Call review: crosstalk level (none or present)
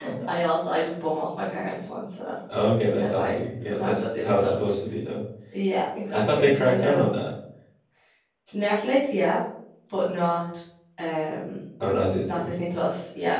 present